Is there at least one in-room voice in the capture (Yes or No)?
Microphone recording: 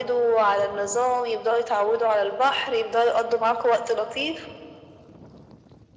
No